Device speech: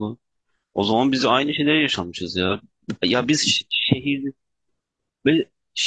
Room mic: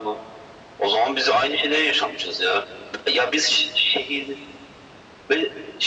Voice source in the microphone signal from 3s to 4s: echo only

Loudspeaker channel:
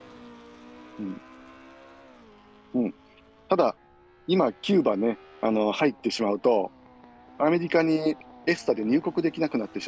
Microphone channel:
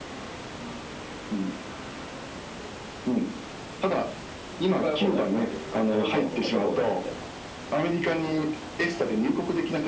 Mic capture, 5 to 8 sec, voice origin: both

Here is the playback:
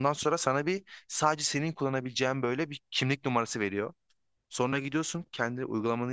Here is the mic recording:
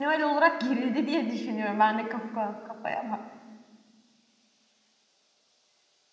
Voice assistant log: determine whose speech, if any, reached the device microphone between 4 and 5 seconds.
neither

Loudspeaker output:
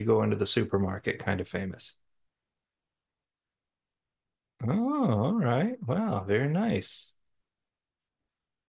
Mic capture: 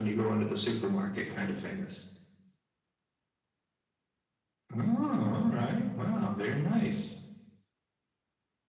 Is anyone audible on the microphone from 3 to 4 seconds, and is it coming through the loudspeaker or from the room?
neither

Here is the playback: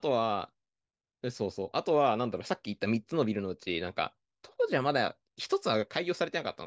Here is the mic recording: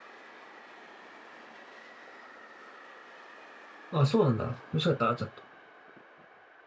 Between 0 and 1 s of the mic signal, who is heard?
neither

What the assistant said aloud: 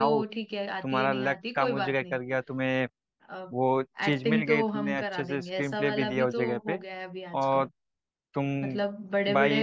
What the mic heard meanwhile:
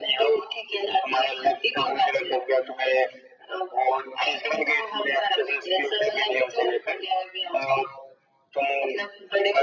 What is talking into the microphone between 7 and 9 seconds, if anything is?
echo only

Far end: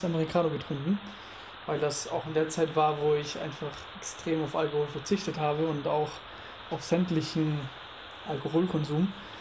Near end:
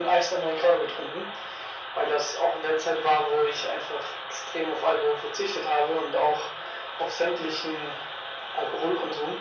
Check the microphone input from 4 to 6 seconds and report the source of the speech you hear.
echo only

